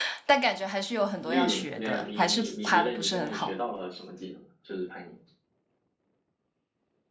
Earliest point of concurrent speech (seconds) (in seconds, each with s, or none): 1.2 s